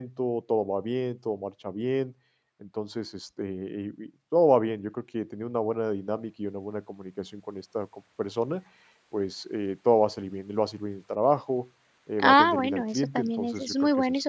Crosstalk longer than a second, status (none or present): present